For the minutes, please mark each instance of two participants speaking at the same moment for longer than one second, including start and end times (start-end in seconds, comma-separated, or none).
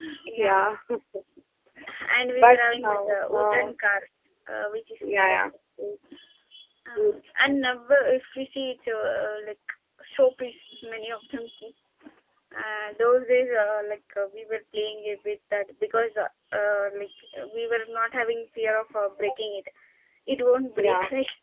2.3-3.7